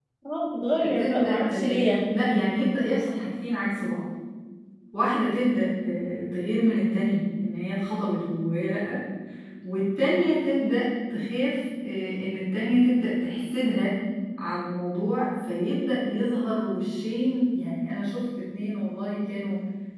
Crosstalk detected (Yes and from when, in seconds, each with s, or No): Yes, from 0.8 s